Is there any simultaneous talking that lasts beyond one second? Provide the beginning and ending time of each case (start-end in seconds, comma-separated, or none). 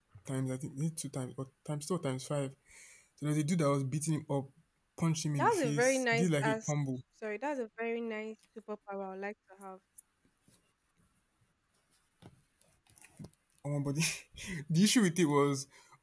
5.3-6.7